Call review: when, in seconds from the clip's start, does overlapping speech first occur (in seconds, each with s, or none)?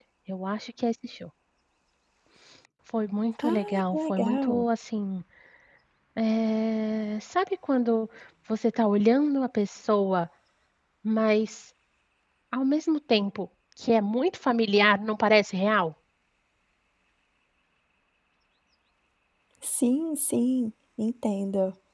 3.4 s